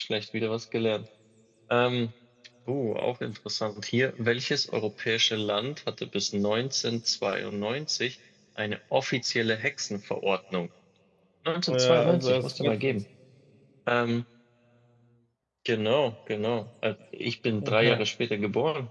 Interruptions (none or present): present